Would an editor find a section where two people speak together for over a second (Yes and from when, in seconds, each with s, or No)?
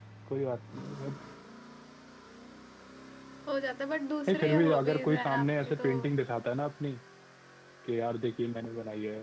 Yes, from 4.3 s